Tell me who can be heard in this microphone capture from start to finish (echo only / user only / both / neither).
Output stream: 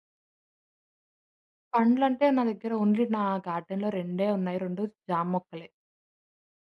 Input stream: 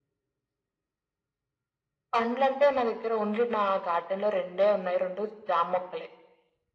echo only